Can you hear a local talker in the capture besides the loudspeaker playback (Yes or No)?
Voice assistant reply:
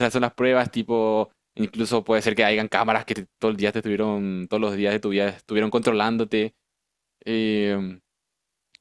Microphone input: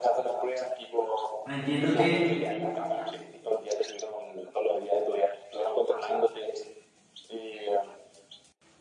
Yes